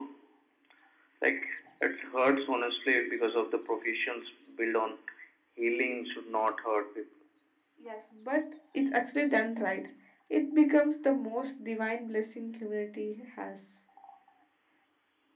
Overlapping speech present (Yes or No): No